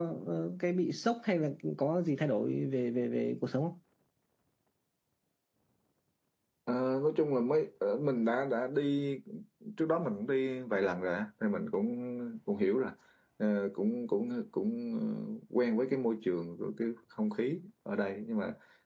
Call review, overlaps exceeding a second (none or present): none